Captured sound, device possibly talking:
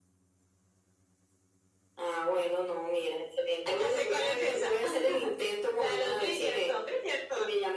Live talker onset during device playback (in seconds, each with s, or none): none